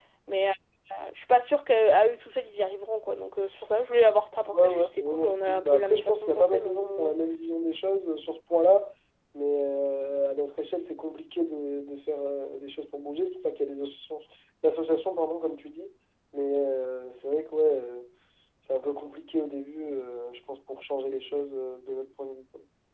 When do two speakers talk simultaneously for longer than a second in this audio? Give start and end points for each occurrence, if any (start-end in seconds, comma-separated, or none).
4.5-7.1